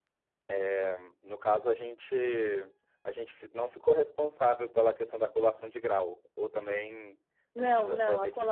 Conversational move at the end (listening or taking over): taking over